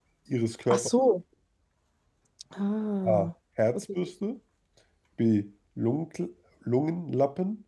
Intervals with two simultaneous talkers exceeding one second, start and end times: none

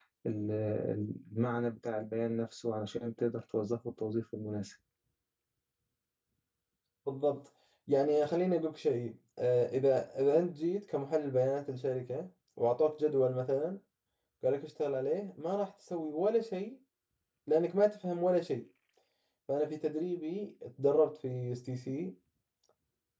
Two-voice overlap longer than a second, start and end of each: none

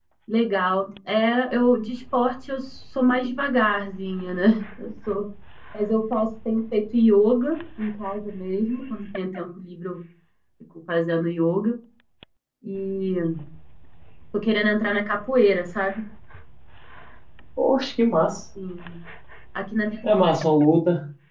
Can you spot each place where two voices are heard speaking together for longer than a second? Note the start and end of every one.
none

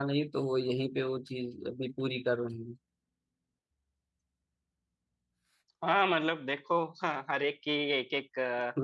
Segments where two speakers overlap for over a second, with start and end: none

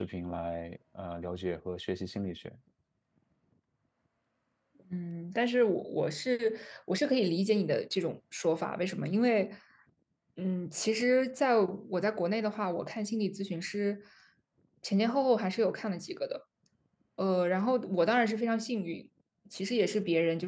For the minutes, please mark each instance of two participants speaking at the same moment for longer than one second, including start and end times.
none

